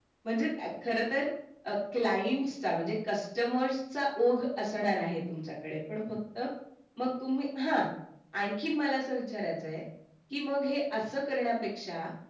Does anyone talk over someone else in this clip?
No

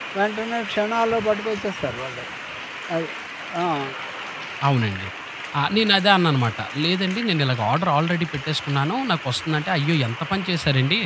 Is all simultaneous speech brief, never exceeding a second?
Yes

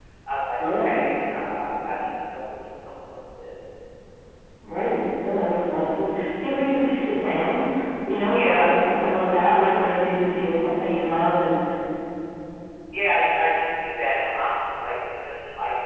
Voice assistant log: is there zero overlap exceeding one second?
Yes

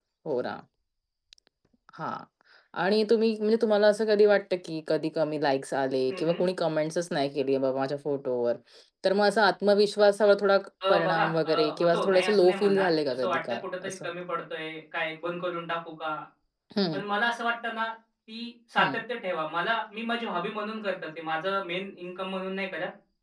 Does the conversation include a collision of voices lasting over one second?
Yes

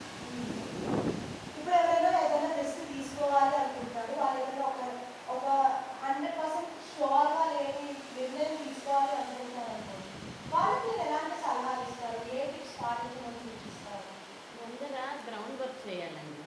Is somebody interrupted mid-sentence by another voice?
No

